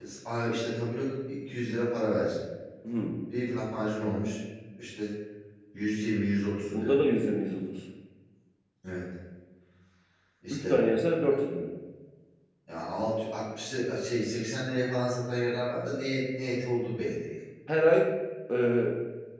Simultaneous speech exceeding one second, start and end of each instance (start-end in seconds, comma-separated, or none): none